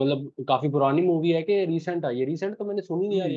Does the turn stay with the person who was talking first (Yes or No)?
No